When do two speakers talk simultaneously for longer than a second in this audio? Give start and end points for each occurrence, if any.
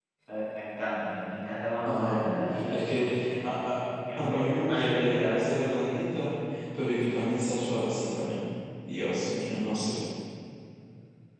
4.2-5.4

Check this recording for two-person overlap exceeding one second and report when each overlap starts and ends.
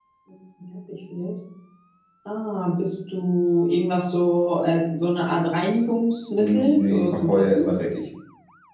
6.4-7.7

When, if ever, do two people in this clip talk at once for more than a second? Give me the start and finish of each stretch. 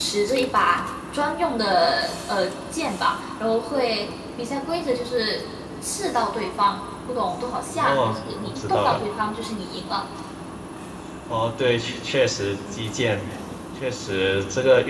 7.7-9.0

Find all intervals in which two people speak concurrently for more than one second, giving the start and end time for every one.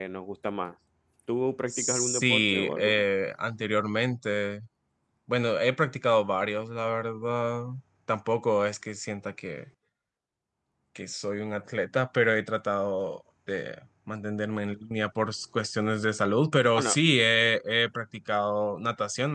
1.7-3.0

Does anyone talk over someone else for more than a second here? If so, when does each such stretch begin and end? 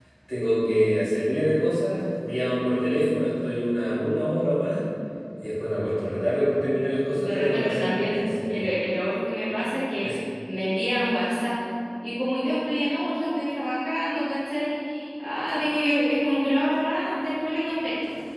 7.2-8.6

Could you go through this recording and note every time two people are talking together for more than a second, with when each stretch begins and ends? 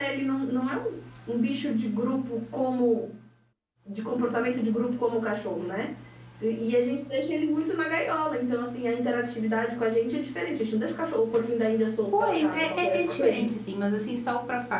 12.1-13.5

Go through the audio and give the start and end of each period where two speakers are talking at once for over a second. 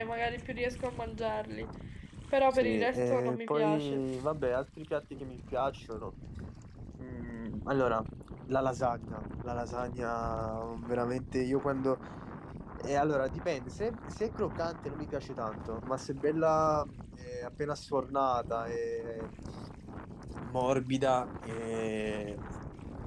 2.5-4.0

